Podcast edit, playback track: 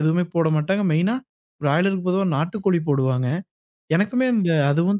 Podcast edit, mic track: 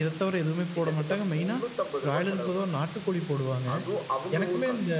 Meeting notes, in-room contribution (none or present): present